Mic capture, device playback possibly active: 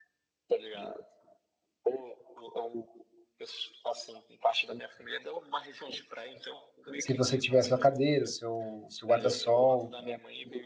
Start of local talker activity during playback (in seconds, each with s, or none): 7.0 s